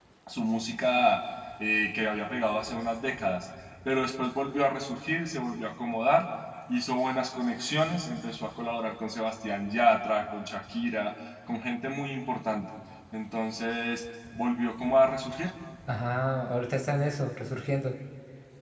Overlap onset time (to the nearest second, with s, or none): none